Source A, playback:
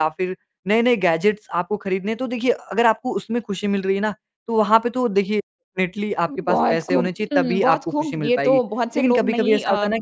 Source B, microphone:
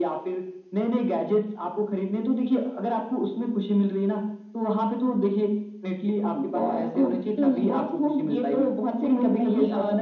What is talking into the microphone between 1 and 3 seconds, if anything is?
echo only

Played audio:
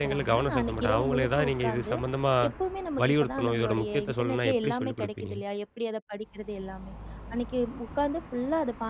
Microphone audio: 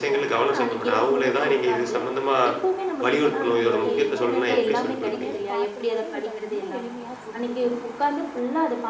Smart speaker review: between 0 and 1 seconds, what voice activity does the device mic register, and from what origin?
echo only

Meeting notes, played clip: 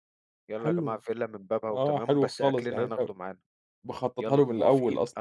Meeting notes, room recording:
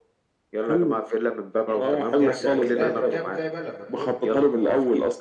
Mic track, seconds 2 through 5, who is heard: both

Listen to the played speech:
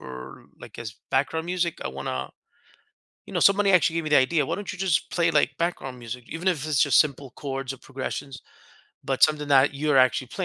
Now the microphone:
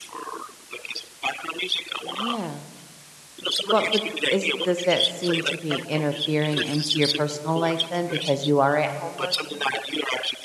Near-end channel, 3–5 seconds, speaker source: both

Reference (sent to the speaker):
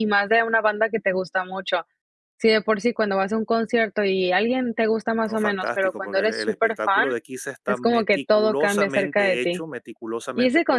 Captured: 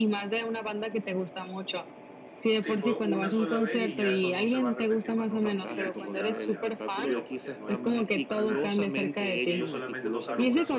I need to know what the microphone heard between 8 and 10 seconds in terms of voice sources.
both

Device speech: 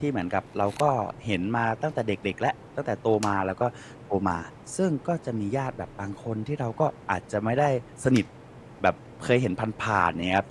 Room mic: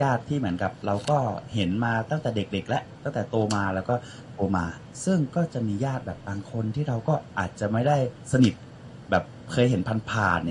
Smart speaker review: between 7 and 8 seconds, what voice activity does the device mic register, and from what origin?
echo only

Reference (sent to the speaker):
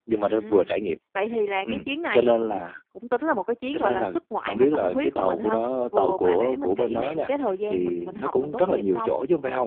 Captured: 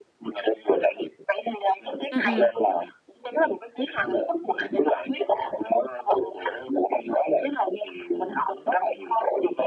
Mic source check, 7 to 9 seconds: echo only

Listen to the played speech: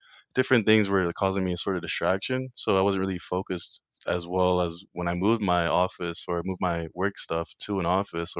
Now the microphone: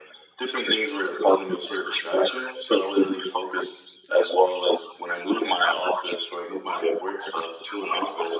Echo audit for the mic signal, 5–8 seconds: echo only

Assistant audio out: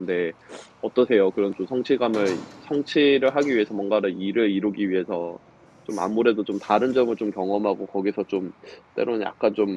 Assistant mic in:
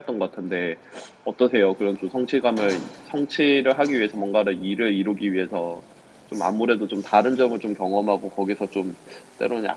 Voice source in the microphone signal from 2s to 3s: echo only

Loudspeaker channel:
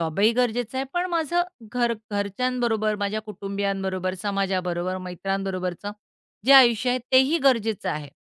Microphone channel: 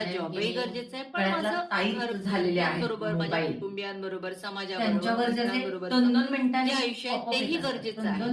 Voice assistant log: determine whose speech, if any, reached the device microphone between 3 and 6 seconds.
both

